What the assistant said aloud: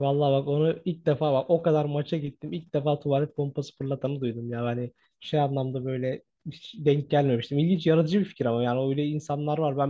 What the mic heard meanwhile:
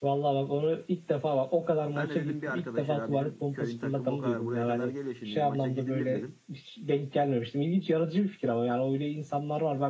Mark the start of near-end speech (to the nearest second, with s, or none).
2 s